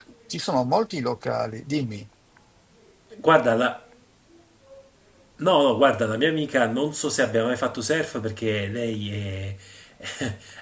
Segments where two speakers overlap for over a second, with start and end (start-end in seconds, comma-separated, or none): none